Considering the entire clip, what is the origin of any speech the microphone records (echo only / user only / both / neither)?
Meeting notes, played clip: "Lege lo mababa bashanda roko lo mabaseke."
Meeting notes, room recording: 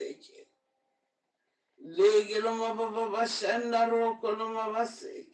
echo only